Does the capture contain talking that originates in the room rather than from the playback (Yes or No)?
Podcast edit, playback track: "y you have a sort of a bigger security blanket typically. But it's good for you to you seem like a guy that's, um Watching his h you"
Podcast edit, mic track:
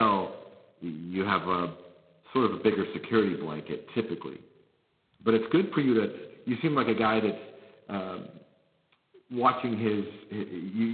No